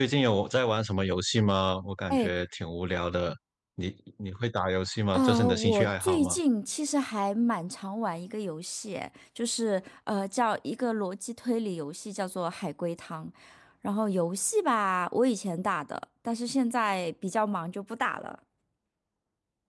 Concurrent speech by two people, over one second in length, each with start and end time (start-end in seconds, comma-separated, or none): 5.1-6.4